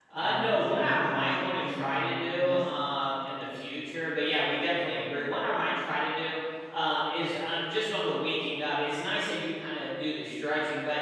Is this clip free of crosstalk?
No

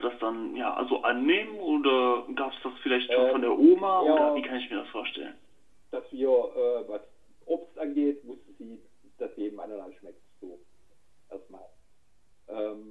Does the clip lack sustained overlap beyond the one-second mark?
No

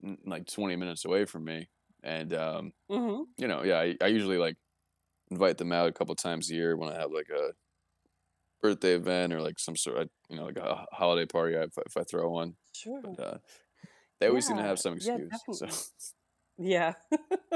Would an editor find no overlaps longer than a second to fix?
No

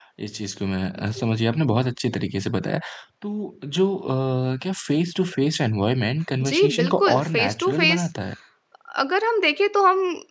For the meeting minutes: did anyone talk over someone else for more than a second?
Yes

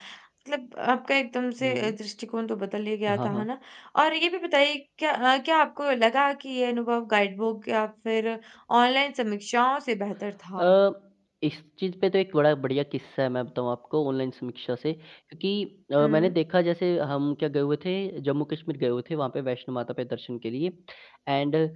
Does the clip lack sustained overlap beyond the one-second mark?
Yes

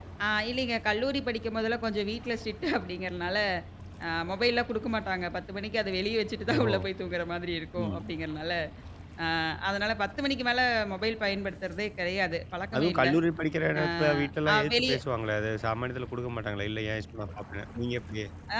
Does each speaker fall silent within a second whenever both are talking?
Yes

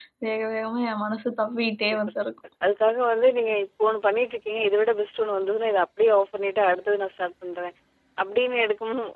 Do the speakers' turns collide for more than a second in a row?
No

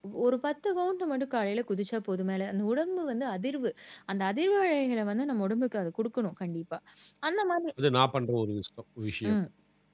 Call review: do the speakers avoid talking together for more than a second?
Yes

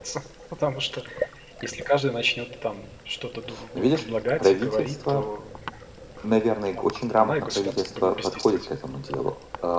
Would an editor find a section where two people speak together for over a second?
Yes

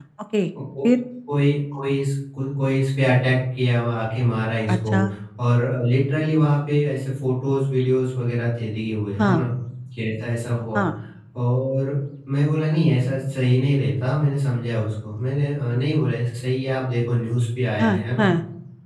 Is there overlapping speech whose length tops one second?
No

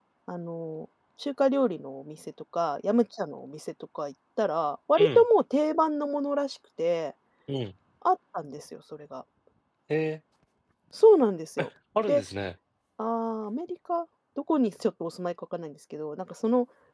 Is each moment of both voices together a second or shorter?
Yes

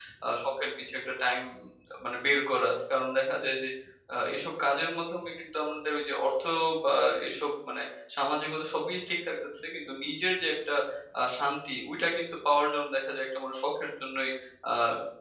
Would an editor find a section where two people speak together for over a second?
No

